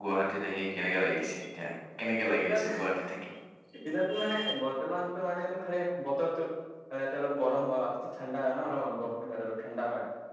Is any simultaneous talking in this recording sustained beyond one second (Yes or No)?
No